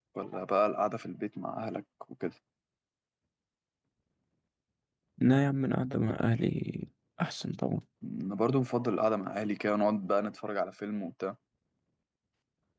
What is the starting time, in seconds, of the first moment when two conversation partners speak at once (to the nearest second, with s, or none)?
none